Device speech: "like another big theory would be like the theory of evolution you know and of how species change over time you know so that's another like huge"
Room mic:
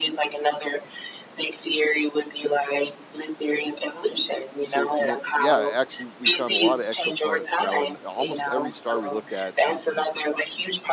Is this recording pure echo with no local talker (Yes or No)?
No